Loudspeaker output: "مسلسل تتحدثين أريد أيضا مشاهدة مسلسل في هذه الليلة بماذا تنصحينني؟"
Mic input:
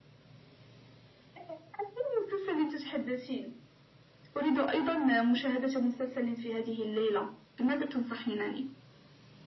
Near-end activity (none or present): none